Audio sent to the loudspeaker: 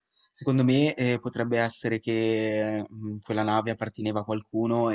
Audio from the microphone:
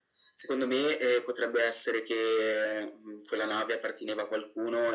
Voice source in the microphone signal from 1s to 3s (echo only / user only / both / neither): echo only